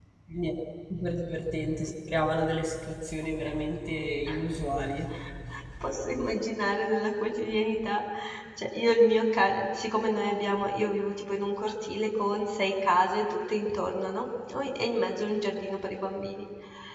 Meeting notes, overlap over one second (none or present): none